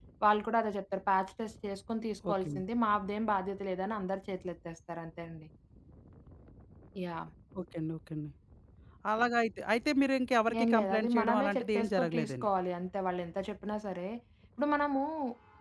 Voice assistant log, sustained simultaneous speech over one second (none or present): present